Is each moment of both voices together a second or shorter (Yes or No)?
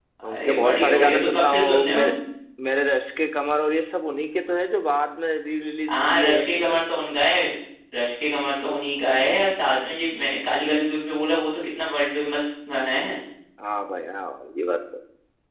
No